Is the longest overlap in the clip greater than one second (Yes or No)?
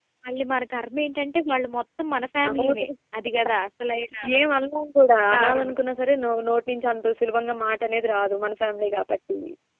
No